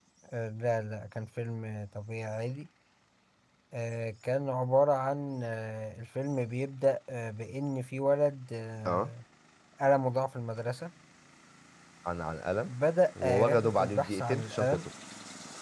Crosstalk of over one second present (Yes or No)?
Yes